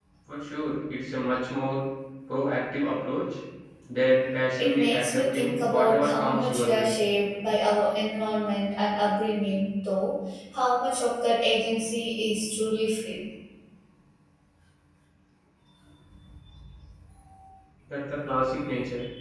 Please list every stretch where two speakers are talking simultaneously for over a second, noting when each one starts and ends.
4.6-6.9

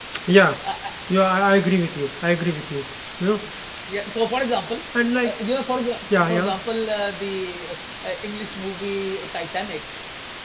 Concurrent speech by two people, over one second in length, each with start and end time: none

